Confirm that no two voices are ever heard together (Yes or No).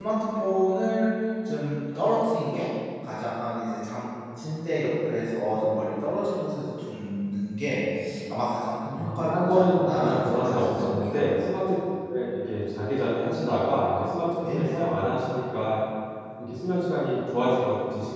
No